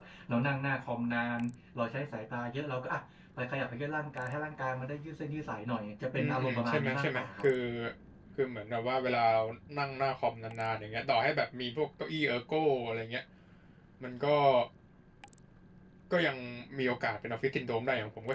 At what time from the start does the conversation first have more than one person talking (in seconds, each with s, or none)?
6.2 s